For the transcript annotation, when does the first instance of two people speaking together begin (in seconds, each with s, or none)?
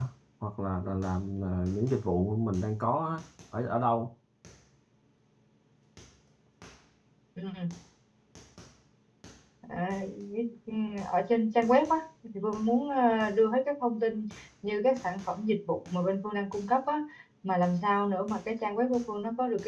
none